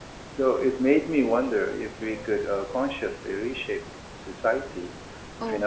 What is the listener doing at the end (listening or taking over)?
taking over